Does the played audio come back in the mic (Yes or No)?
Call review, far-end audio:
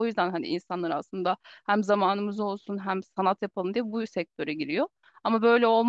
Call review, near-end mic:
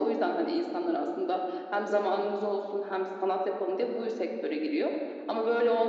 Yes